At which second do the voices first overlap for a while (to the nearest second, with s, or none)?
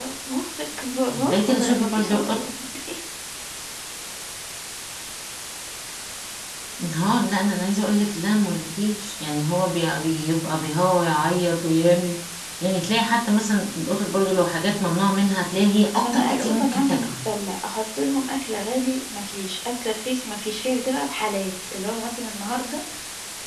1 s